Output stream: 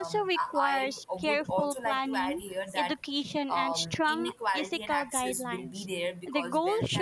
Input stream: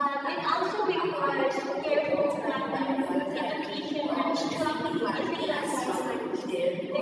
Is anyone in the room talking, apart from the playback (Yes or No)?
Yes